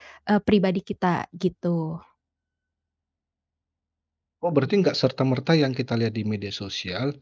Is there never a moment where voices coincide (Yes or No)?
Yes